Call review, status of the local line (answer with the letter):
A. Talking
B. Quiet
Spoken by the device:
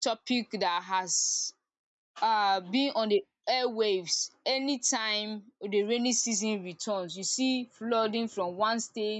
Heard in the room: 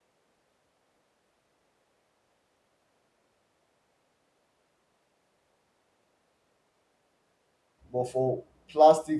A